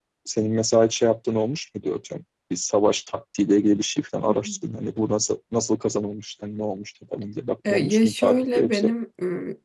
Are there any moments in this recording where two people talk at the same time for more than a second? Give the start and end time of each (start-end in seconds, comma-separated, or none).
7.7-8.9